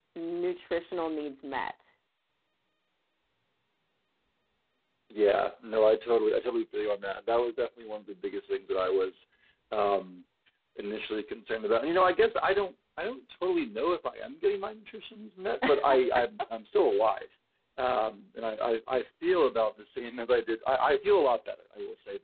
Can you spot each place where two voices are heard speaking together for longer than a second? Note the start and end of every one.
none

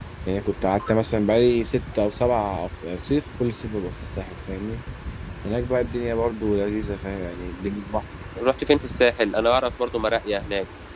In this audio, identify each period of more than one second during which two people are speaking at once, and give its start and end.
none

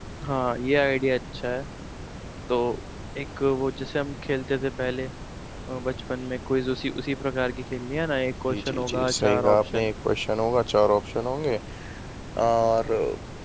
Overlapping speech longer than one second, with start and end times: 8.5-9.9

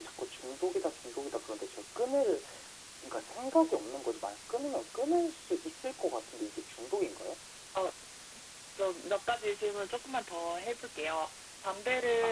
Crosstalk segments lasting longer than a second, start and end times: none

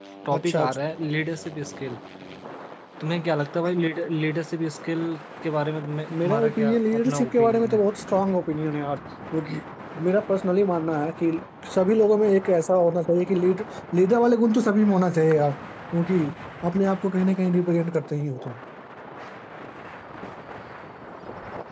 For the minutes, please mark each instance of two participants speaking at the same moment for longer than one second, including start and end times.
6.2-7.8

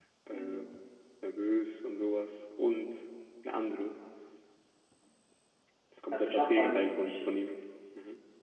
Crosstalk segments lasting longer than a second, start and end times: 6.1-7.3

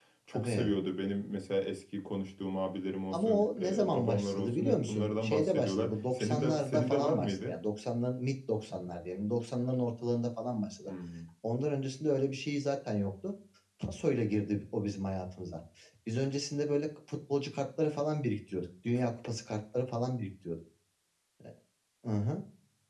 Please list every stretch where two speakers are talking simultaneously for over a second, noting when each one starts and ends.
3.1-7.5

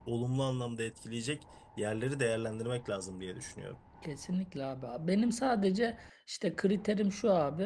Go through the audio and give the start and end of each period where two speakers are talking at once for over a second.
none

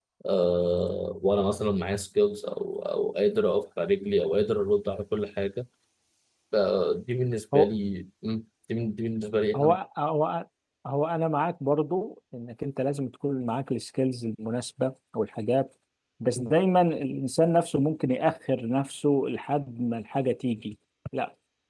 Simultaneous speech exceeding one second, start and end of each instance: none

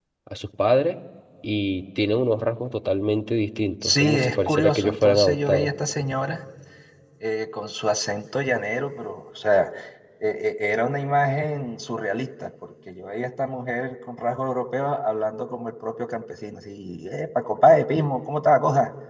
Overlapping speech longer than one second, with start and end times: 3.8-5.7

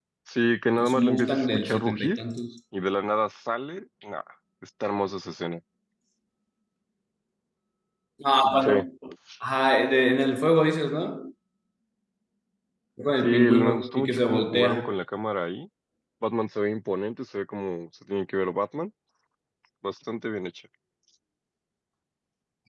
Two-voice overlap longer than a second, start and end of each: 0.7-2.2, 13.2-15.0

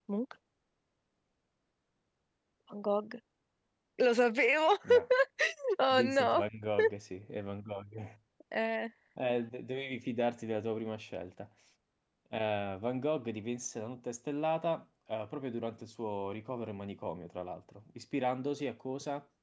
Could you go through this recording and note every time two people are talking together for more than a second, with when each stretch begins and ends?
none

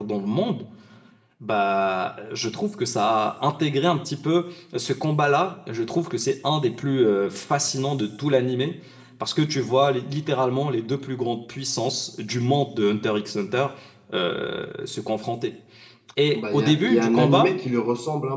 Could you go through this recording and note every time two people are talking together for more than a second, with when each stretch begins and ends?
16.3-17.6

